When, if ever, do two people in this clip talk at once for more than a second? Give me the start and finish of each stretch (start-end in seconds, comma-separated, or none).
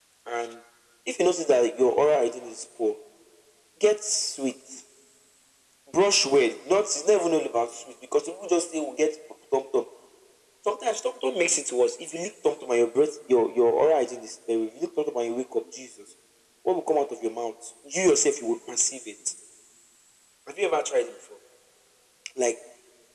none